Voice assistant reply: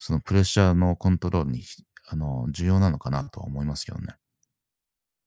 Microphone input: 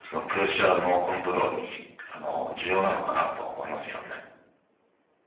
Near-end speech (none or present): none